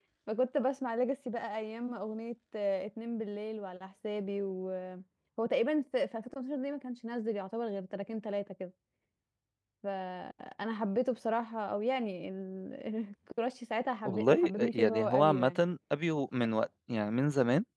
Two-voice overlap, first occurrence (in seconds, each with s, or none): 14.0 s